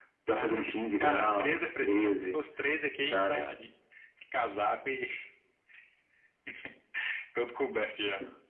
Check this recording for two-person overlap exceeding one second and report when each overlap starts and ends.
1.0-2.4

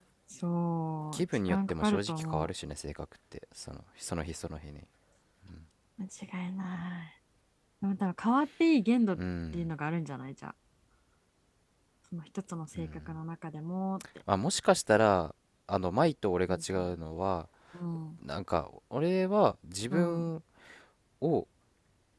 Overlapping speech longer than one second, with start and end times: 1.1-2.5

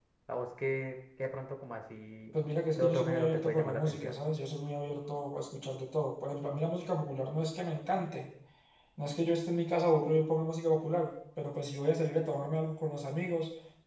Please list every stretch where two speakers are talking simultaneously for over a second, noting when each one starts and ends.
2.8-4.1

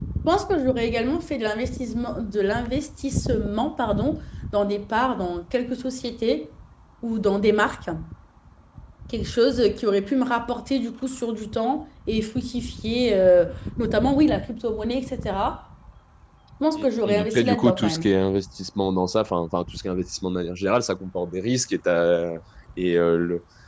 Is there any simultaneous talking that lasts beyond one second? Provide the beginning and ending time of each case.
16.8-18.1

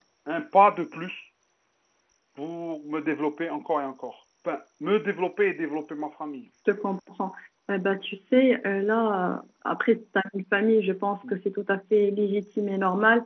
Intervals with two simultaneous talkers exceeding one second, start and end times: none

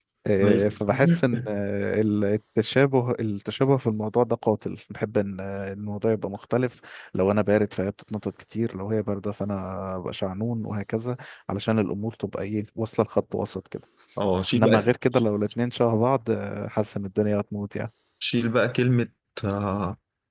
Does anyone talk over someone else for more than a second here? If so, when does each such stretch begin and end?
none

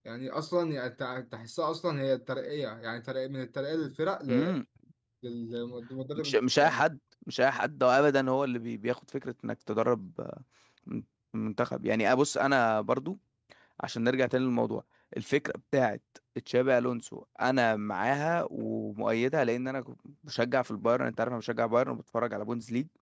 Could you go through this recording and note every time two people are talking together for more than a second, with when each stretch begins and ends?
none

